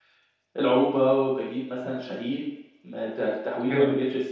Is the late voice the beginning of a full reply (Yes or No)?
No